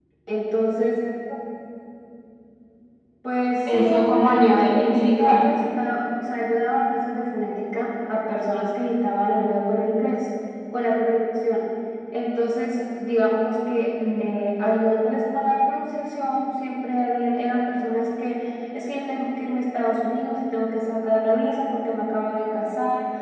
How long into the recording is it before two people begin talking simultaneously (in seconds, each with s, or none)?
3.6 s